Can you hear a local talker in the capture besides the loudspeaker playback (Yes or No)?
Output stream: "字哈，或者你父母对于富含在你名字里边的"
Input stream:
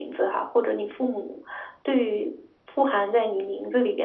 No